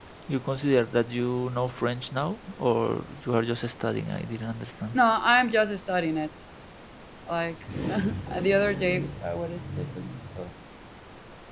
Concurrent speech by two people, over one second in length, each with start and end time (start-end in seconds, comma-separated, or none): none